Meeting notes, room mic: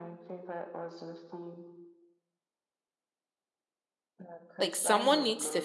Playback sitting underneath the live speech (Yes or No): Yes